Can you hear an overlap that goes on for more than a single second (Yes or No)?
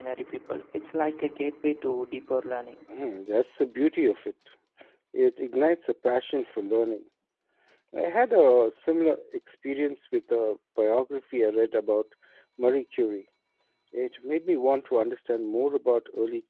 No